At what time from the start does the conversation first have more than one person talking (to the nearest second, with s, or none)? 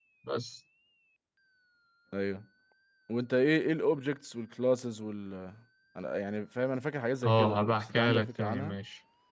7 s